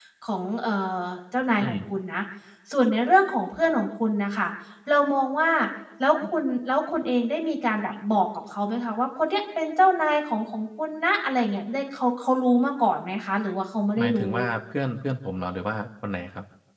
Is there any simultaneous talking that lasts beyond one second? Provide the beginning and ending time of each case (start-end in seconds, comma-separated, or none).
none